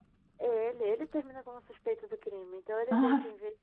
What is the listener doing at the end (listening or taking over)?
listening